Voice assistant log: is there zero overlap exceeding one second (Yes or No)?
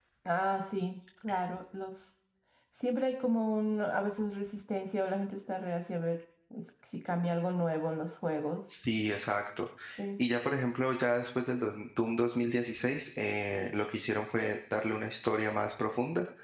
Yes